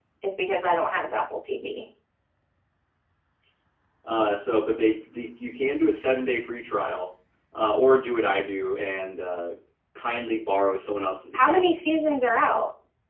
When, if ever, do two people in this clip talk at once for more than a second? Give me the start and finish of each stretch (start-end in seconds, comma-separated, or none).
none